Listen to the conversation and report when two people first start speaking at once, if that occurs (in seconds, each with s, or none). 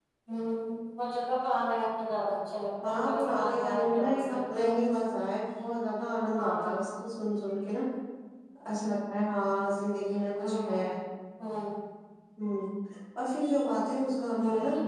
2.8 s